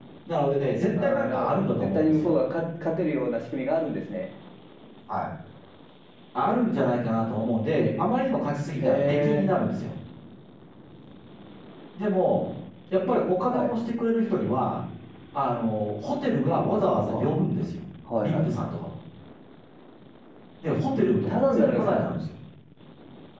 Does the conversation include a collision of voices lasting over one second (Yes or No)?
Yes